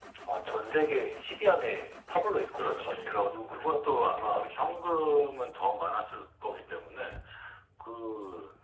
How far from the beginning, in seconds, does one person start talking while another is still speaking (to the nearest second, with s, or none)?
3 s